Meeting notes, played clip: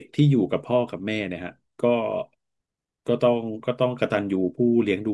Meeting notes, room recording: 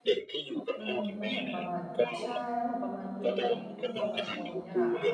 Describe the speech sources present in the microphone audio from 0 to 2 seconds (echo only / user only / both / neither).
both